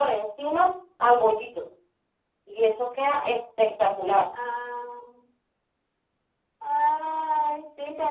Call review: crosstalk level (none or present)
none